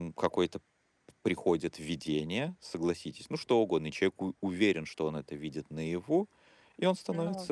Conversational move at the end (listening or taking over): listening